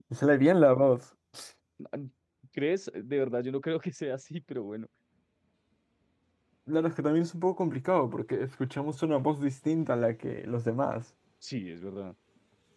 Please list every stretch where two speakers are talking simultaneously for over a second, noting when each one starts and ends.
none

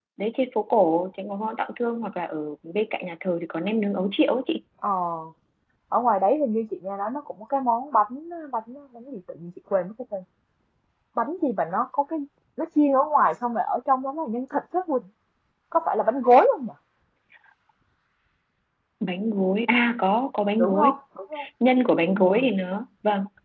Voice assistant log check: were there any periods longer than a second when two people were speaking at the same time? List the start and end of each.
none

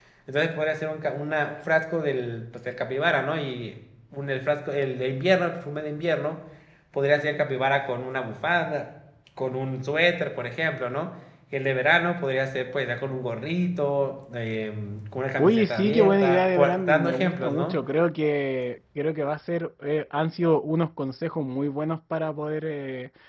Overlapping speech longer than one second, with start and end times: 15.4-17.8

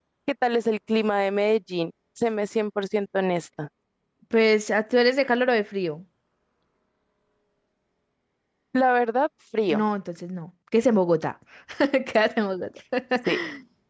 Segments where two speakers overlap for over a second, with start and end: none

